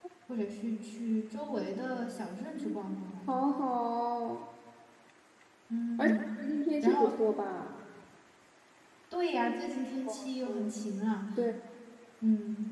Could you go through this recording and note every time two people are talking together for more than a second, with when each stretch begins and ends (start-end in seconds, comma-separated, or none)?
none